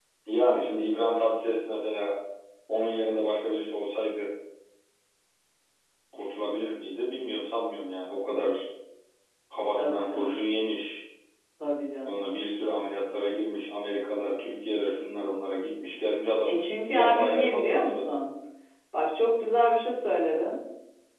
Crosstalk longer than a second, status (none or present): present